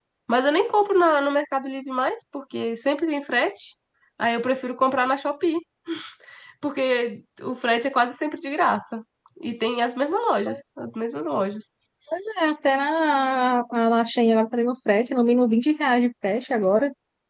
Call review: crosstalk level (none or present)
none